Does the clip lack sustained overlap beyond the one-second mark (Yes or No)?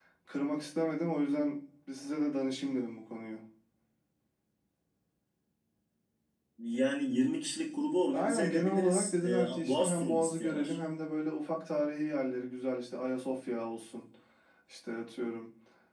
No